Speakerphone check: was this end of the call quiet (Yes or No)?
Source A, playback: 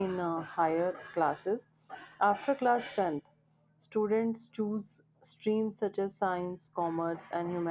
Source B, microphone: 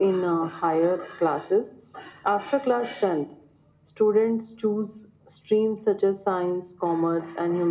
Yes